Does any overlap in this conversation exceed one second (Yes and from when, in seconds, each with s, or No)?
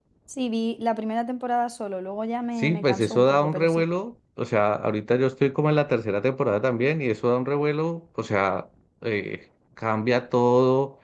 Yes, from 2.6 s